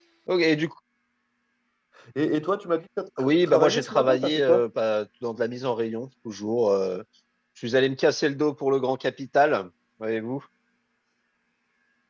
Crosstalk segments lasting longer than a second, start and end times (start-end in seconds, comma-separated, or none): 3.2-4.7